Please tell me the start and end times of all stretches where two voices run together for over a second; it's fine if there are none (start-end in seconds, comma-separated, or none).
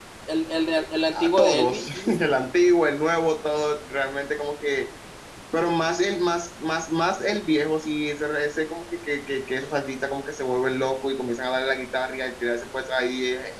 1.1-2.4